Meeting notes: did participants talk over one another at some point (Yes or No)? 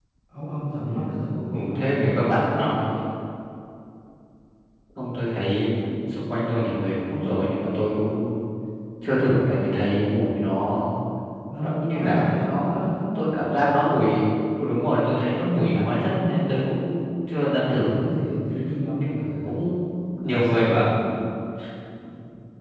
Yes